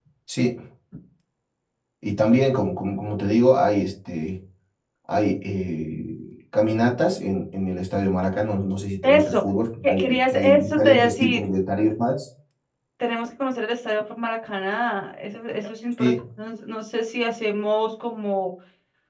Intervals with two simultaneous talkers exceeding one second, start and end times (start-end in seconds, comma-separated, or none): 9.8-11.5